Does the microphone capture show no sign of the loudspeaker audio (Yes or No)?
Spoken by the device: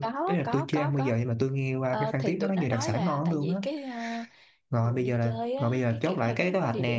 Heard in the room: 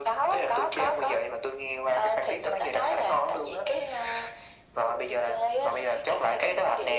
No